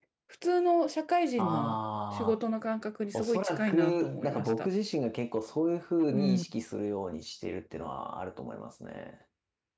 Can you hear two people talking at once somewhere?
Yes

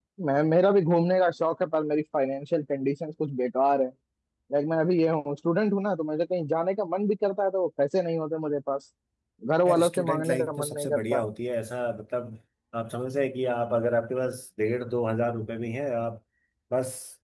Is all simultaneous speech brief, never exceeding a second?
No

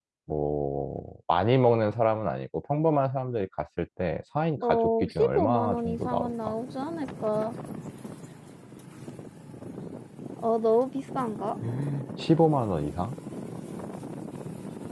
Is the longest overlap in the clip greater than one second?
Yes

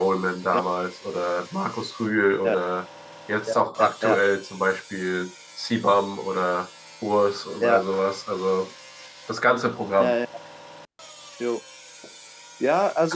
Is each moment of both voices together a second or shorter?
Yes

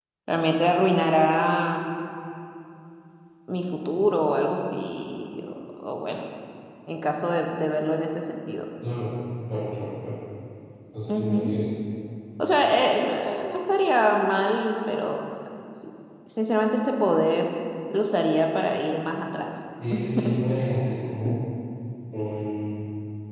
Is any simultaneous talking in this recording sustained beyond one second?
No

